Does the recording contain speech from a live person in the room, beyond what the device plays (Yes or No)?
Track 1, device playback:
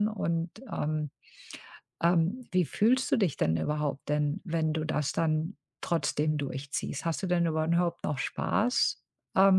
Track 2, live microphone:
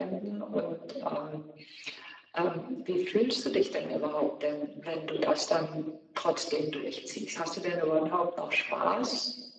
No